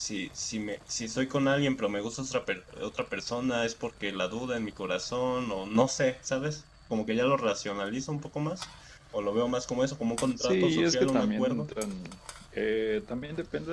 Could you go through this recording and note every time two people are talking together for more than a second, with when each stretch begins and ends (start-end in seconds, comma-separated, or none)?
10.4-11.7